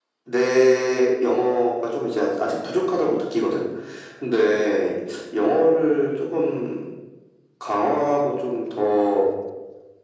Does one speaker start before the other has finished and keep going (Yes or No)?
No